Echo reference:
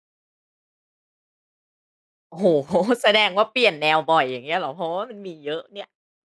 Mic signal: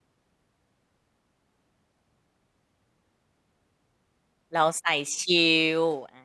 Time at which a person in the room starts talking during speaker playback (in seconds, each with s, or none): 4.5 s